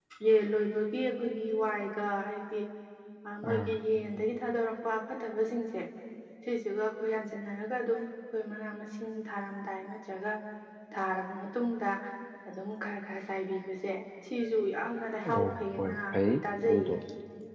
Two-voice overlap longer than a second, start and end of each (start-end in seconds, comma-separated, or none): 15.3-16.9